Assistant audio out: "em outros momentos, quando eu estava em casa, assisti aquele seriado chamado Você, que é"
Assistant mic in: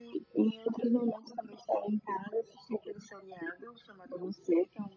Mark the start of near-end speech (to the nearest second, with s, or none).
none